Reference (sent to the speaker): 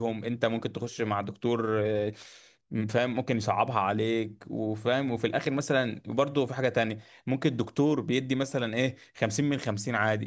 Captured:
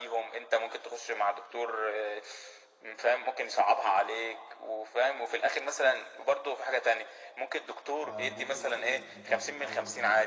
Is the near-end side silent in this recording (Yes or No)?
No